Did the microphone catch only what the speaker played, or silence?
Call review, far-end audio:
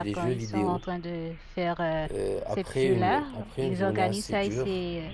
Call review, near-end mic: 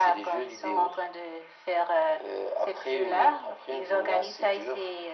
Yes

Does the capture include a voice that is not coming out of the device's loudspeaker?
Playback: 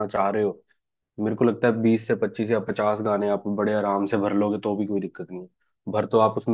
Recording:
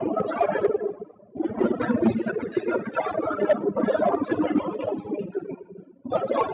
No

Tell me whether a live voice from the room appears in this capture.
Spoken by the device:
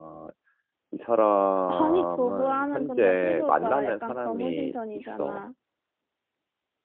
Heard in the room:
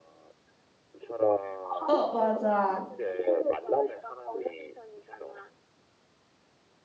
Yes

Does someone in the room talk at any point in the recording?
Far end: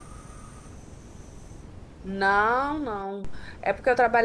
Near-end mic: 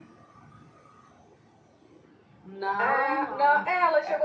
Yes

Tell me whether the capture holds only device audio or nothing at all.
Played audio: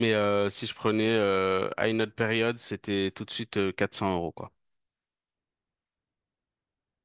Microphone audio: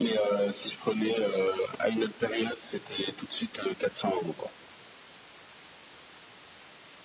Yes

